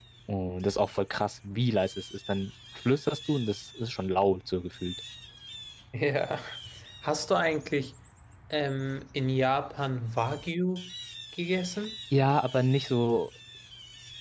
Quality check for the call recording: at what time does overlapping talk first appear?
none

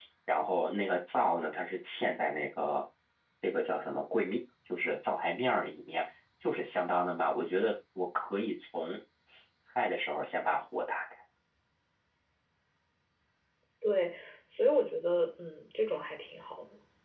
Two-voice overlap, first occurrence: none

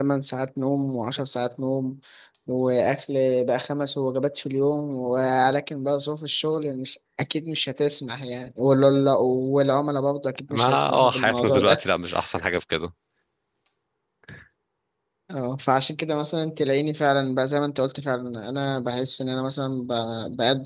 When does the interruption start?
10.5 s

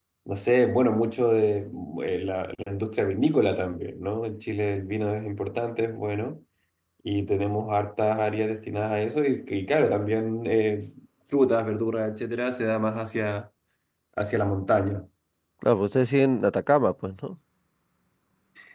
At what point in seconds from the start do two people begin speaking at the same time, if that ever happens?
none

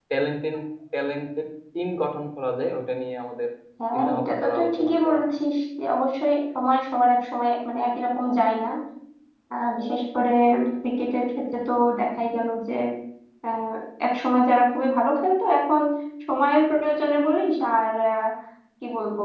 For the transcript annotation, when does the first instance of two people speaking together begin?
3.9 s

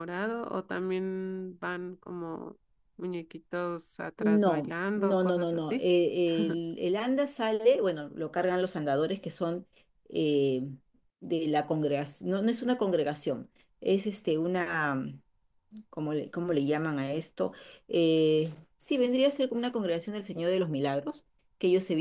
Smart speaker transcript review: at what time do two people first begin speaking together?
4.2 s

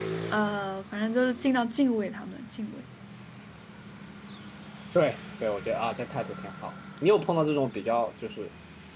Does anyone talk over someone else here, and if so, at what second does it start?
none

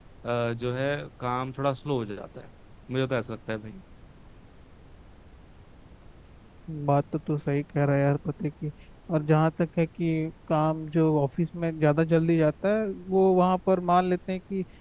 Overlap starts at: none

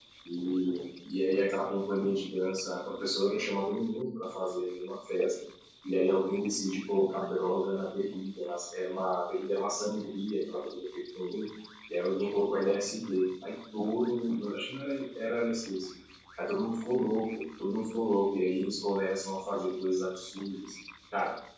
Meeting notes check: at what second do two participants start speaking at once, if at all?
none

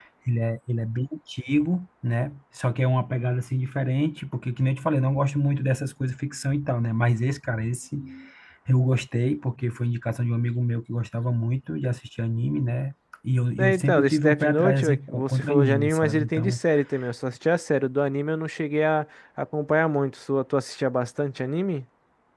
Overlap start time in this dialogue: 13.6 s

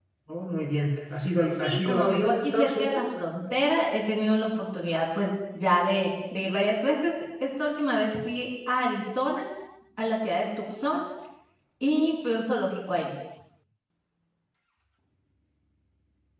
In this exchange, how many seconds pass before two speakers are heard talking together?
1.6 s

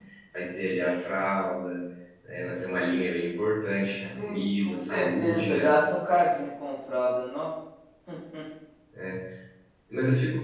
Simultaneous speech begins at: 4.0 s

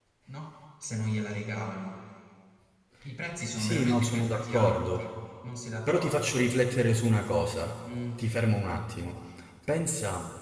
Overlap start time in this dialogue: 3.6 s

